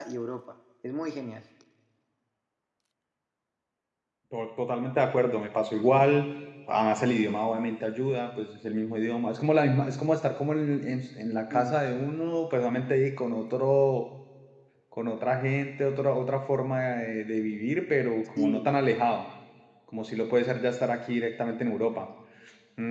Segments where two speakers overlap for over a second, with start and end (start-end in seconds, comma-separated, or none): none